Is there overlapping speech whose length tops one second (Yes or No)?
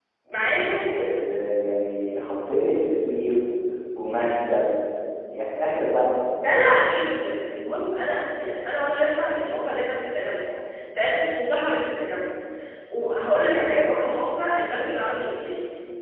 No